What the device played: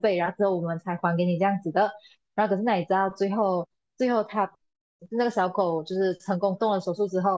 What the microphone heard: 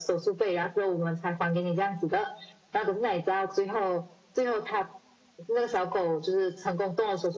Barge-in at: none

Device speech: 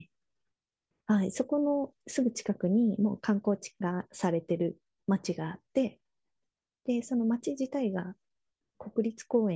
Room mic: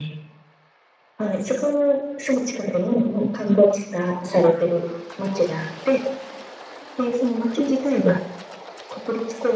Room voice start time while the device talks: none

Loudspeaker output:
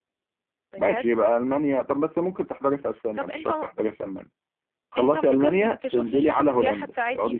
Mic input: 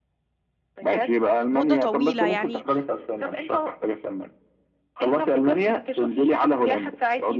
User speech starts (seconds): 1.5 s

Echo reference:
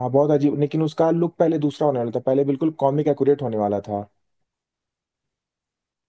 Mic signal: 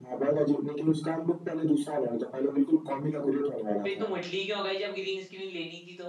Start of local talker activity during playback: 3.8 s

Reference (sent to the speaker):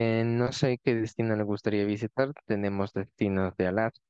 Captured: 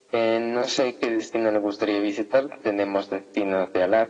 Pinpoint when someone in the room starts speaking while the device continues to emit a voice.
none

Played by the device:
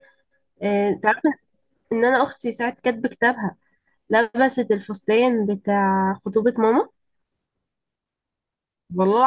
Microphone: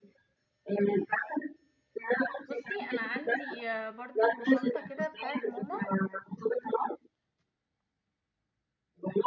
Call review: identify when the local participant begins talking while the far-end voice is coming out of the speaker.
2.5 s

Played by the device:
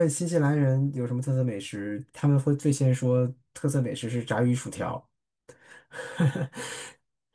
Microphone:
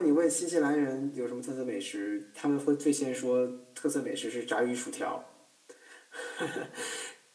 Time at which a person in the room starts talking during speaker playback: none

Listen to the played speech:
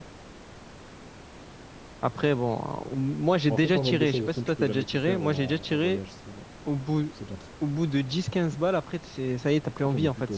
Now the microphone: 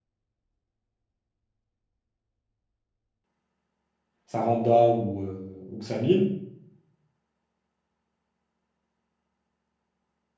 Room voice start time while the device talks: 4.2 s

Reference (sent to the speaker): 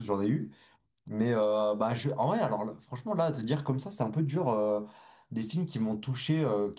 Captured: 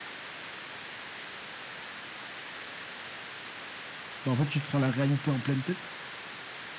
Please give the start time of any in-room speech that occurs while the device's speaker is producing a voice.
4.2 s

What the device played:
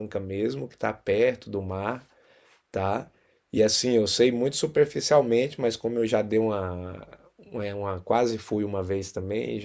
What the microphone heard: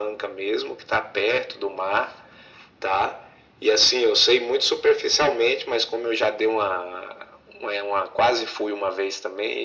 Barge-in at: none

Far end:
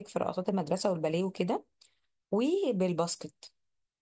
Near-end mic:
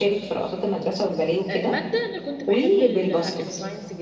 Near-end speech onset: 1.5 s

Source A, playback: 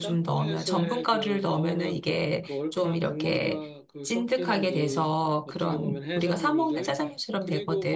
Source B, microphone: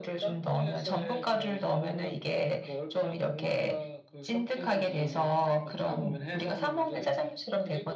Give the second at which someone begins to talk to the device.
none

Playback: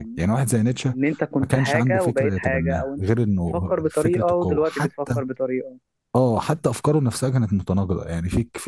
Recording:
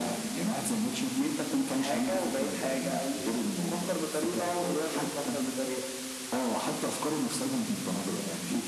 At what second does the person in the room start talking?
none

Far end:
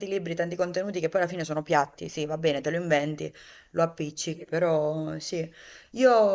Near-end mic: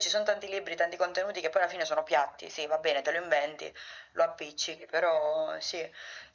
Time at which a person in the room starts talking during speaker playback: none

